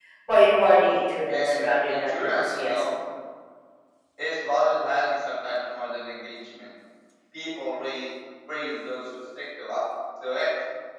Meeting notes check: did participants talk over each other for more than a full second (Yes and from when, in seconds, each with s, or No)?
Yes, from 1.3 s